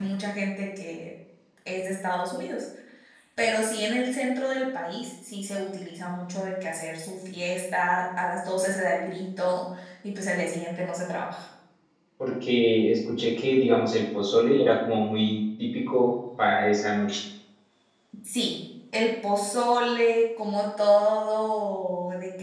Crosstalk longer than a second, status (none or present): none